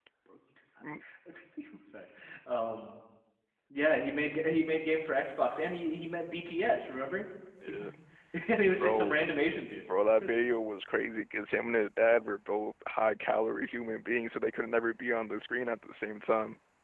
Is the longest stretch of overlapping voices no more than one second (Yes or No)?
Yes